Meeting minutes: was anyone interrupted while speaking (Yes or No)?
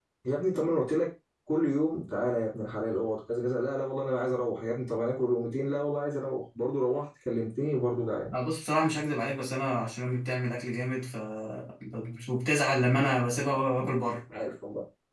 No